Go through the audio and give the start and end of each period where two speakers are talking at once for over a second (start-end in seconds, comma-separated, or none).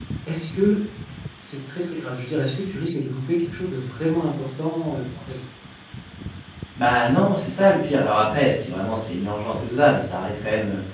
none